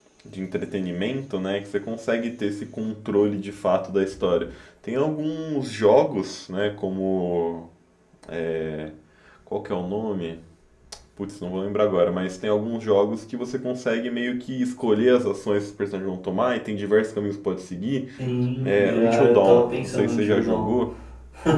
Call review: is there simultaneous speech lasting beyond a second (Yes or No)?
Yes